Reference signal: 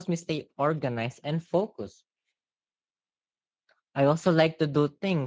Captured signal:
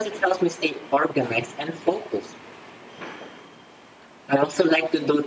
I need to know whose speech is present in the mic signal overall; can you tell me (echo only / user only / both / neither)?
echo only